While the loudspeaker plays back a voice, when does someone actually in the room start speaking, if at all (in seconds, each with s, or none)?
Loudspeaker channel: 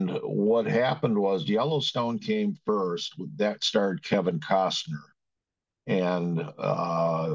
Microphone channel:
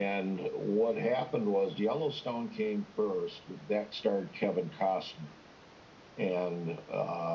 none